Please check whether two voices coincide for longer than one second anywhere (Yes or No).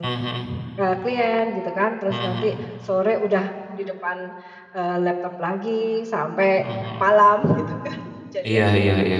No